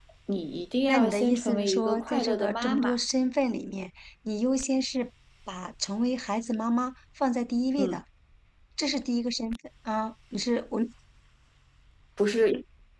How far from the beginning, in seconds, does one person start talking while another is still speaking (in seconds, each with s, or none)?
0.9 s